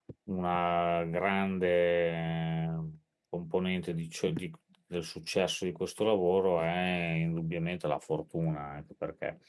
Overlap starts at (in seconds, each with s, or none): none